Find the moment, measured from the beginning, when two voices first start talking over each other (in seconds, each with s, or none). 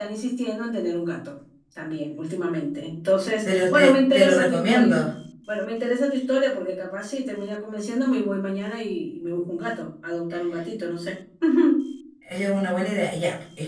3.5 s